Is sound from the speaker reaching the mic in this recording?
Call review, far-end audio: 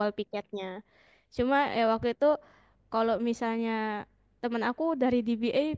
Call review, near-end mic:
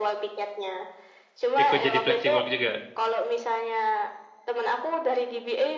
Yes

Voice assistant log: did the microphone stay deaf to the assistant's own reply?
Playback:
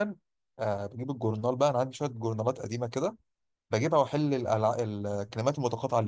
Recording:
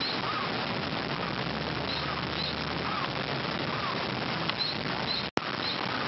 Yes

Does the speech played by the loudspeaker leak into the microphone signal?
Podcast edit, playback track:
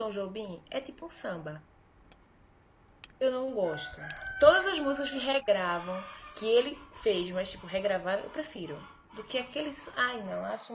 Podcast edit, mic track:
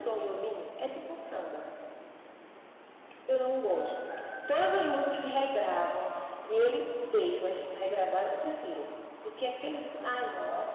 Yes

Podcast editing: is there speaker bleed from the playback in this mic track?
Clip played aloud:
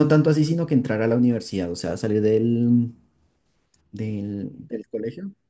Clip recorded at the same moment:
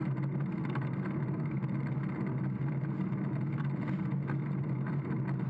No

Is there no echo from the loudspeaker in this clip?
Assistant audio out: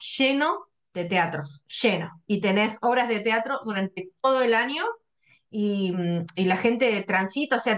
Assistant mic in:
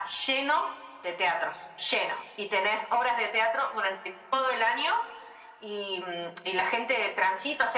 No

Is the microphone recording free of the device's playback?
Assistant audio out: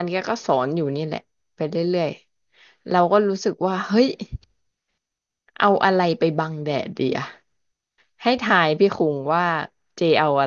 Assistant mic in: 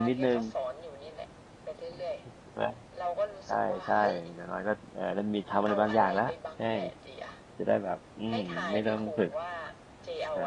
No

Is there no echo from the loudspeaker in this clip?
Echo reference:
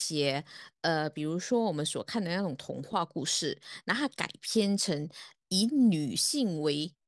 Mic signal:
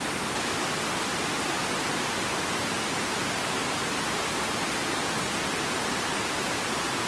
Yes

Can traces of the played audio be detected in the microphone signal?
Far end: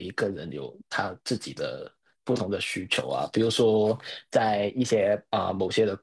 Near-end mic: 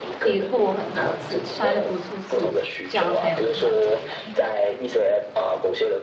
Yes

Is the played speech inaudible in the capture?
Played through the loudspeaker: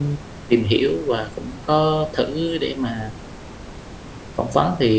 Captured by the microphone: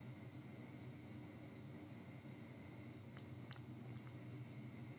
Yes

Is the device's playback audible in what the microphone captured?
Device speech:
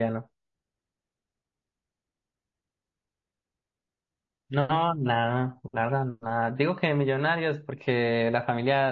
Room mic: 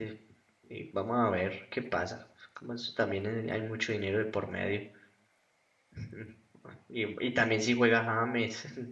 No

